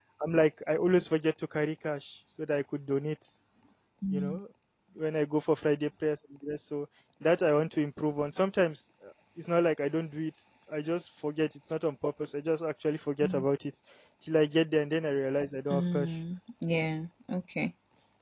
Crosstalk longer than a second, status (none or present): none